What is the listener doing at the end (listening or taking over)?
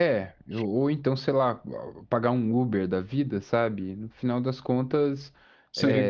listening